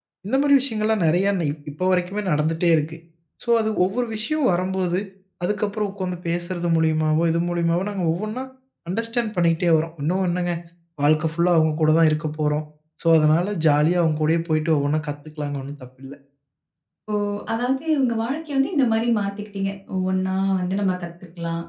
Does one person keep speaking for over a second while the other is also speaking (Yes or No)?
No